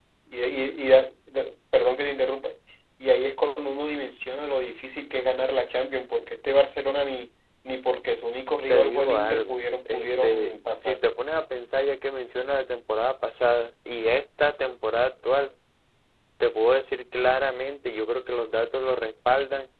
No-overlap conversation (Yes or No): No